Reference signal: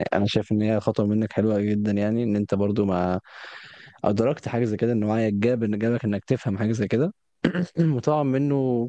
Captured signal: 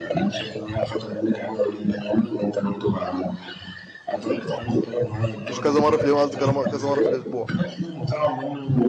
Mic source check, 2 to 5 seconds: echo only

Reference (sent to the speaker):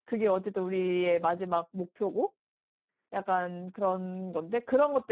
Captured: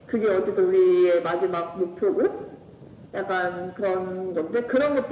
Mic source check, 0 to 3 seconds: echo only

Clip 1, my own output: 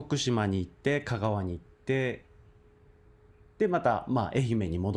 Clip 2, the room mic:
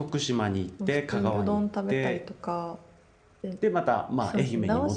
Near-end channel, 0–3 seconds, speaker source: both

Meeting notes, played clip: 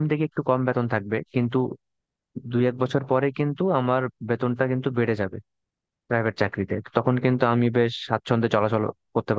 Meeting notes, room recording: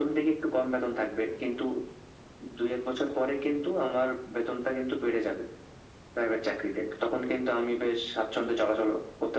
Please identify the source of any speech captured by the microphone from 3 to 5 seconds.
echo only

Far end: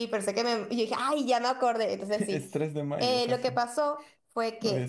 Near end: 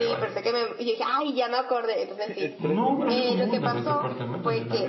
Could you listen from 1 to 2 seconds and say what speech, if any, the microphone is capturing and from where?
echo only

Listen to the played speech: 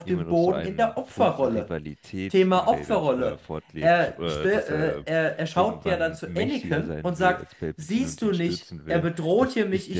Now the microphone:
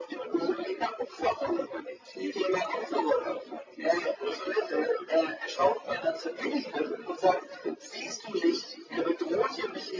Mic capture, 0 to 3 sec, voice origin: echo only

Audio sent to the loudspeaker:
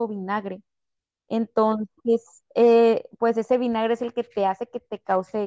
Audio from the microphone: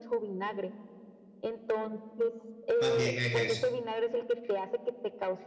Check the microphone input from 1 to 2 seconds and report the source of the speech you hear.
echo only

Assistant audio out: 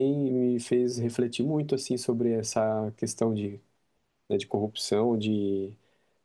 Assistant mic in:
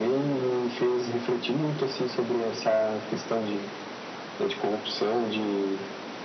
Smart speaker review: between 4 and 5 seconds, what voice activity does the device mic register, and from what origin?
echo only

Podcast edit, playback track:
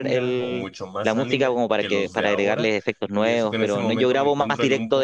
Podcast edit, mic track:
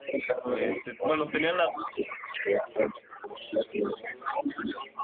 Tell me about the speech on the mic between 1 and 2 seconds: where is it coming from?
both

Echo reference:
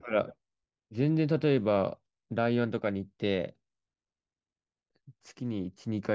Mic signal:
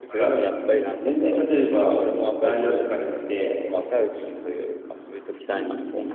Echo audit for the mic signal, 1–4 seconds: both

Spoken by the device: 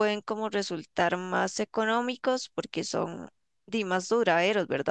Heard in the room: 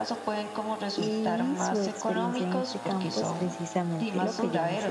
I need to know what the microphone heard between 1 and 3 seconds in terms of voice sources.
both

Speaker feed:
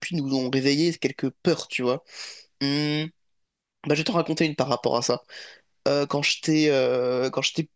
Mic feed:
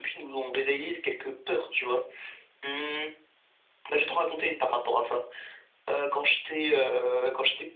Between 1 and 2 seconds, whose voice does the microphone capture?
echo only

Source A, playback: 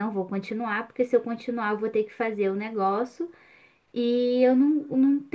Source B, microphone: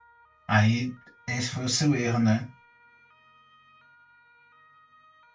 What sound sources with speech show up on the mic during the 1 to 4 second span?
user only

